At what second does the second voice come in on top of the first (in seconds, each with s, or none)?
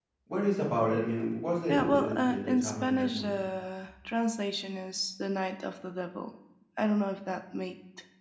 1.7 s